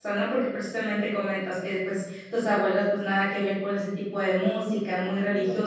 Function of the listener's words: listening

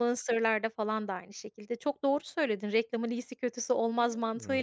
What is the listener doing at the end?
listening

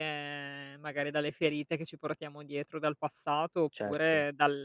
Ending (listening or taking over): listening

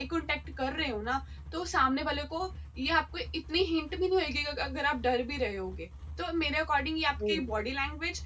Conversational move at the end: listening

